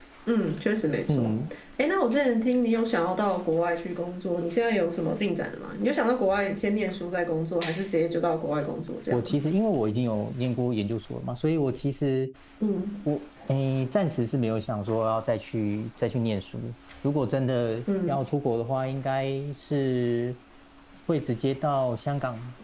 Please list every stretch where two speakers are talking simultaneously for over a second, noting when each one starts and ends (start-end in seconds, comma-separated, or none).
none